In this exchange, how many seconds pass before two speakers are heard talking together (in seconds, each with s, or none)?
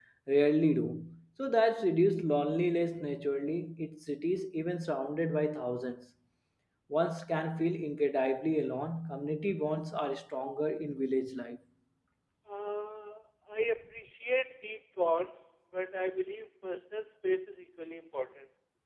none